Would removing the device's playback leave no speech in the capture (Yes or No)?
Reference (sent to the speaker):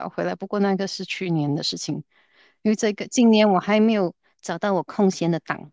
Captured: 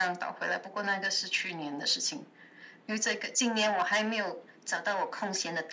Yes